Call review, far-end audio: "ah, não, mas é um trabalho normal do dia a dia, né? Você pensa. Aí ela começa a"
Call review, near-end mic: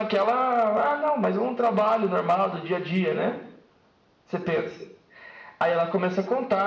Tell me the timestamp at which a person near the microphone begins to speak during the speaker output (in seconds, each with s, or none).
none